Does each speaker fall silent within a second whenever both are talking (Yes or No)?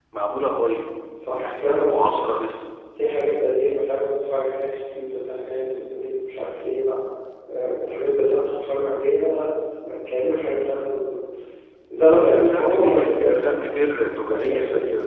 No